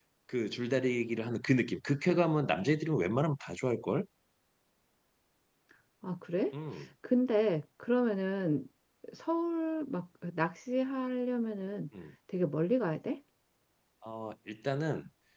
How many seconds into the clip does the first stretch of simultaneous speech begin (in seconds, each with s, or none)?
none